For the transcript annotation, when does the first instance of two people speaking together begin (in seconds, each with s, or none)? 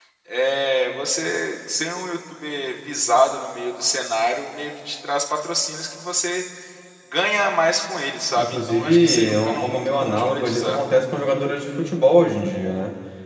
8.4 s